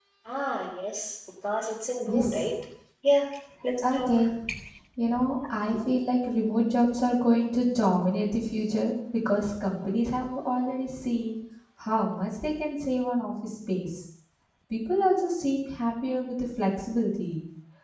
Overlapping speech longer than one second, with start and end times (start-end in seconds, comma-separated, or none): none